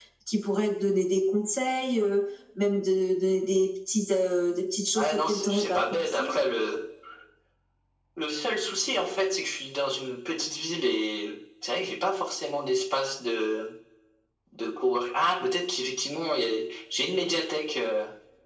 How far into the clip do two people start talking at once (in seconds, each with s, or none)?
5.0 s